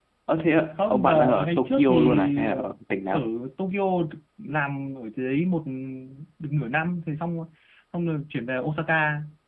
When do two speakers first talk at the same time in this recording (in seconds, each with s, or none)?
0.8 s